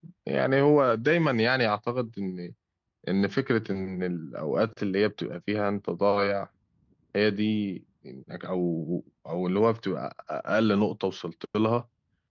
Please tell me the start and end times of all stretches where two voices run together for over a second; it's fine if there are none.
none

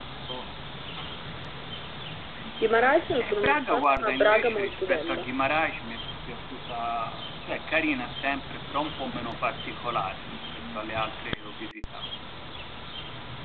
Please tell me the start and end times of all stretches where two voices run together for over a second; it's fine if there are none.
3.2-5.2

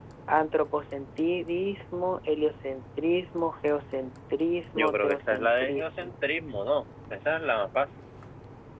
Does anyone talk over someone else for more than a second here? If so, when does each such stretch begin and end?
4.7-6.1

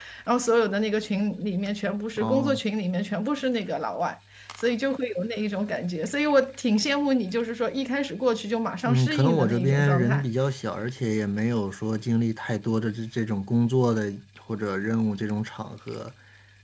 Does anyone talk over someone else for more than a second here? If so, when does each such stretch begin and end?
8.8-10.2

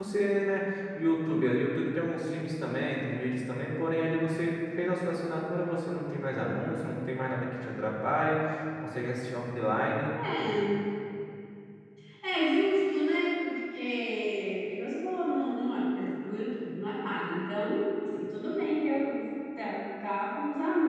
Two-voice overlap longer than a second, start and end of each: none

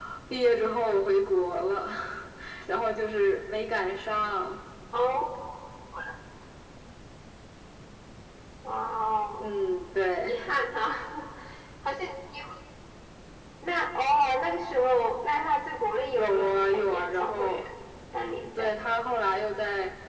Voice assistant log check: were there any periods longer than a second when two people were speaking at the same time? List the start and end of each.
16.1-17.6

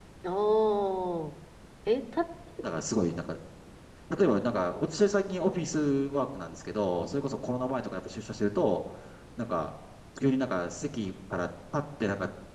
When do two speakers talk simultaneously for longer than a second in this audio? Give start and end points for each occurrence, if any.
none

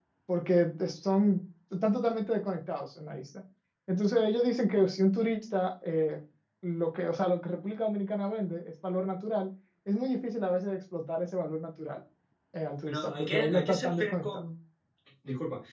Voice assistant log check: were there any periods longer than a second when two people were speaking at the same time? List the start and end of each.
12.9-14.4

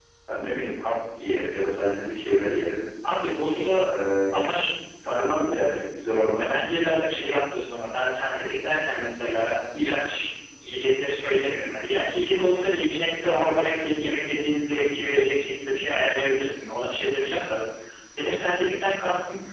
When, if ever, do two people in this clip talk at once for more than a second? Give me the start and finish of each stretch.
none

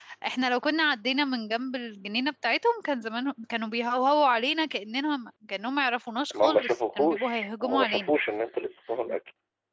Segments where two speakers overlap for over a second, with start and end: 6.3-8.1

